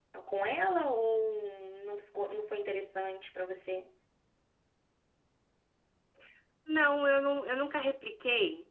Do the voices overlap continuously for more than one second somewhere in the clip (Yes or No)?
No